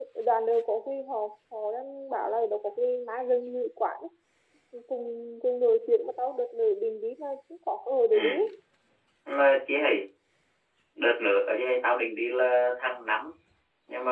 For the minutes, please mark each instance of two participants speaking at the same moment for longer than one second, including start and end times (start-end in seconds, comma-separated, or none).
none